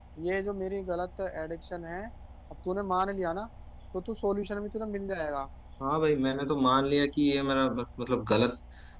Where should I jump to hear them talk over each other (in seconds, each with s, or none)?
none